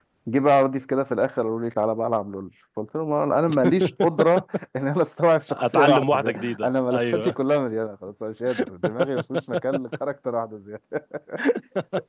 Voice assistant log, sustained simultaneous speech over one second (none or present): present